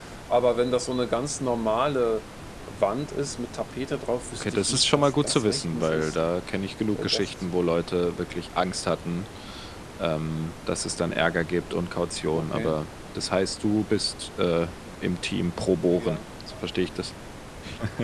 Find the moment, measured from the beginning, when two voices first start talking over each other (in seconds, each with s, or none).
4.3 s